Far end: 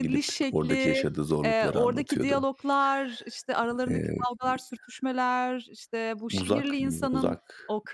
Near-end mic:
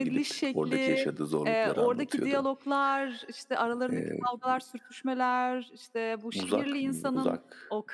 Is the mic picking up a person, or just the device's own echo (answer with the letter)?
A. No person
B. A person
A